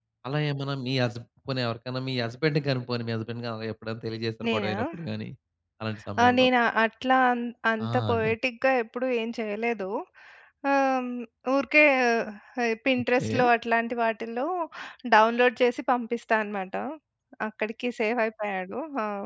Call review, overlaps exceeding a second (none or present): none